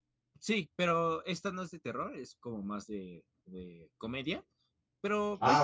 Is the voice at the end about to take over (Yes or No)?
No